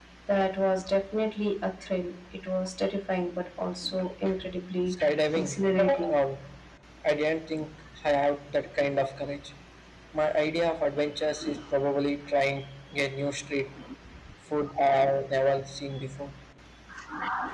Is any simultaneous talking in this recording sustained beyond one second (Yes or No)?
Yes